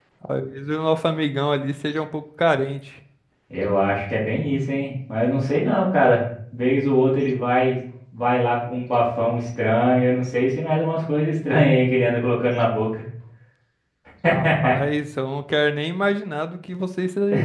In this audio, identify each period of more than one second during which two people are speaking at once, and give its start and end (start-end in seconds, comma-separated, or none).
none